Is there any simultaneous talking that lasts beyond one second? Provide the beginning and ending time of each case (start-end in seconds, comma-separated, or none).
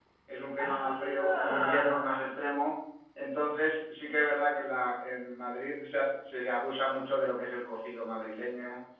0.6-2.3